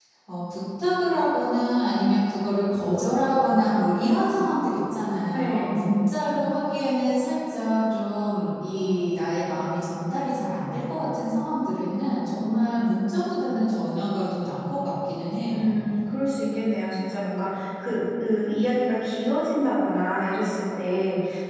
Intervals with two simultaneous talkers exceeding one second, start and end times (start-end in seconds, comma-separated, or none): none